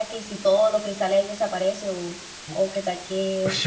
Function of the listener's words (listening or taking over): taking over